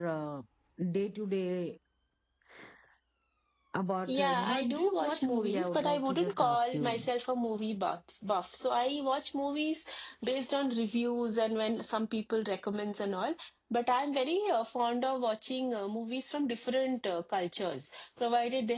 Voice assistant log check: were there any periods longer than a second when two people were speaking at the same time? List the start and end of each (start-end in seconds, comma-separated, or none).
4.1-7.0